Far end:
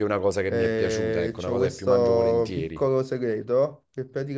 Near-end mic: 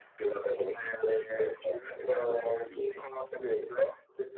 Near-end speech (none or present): none